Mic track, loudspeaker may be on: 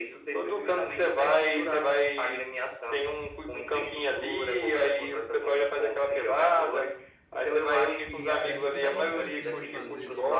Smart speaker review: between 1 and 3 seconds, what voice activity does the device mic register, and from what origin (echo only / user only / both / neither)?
echo only